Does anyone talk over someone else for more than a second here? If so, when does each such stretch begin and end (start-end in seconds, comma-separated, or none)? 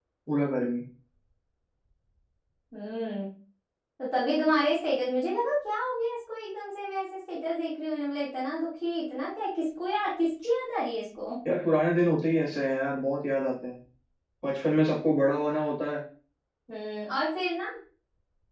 none